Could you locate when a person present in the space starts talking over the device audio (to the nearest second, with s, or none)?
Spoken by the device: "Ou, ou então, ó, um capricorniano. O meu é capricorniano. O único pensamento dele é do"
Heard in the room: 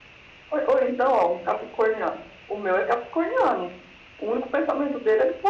none